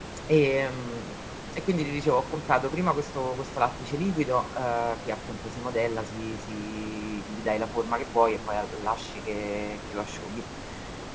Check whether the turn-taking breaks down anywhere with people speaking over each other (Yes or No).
No